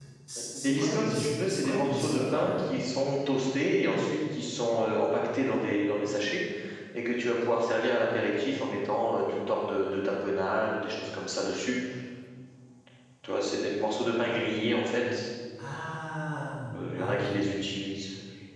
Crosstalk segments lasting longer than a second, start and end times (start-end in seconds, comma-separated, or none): 0.5-2.5